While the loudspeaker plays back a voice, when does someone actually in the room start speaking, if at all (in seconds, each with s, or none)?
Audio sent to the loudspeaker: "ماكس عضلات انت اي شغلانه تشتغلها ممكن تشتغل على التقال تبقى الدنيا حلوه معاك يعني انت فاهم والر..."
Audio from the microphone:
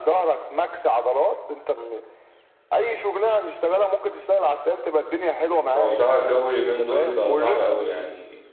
5.8 s